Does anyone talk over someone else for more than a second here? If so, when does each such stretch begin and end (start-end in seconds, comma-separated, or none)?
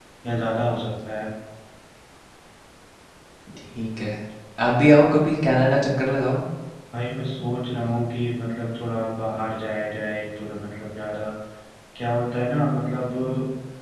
none